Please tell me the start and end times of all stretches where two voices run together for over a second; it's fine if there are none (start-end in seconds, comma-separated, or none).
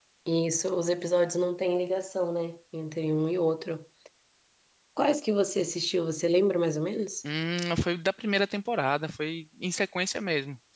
none